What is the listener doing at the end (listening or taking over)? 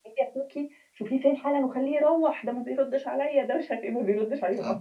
taking over